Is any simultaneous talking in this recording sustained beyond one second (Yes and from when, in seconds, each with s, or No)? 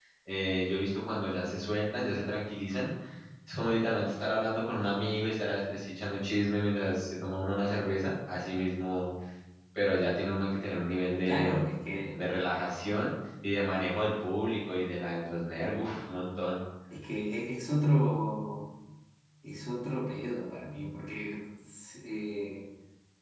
No